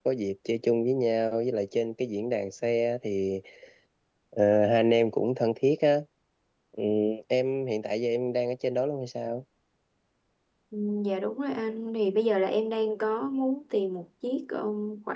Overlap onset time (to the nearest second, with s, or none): none